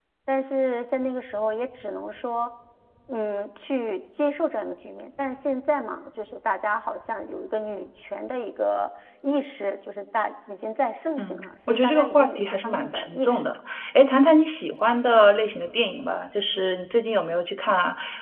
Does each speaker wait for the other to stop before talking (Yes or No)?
No